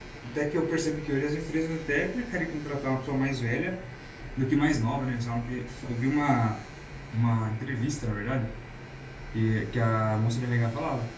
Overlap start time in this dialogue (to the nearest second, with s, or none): none